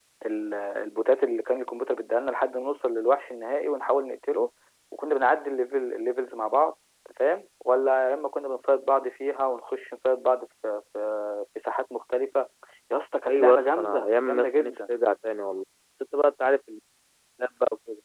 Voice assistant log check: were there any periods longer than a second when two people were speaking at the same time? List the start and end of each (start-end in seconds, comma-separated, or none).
13.3-14.8